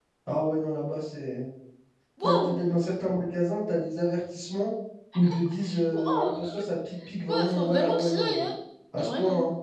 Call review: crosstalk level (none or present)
present